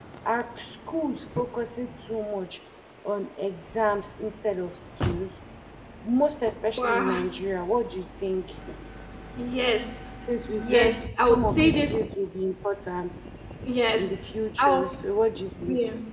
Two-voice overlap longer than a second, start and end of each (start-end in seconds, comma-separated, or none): 10.5-11.9